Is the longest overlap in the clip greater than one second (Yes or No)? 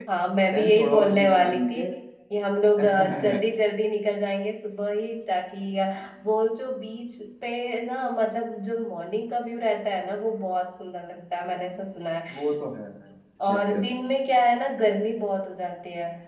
Yes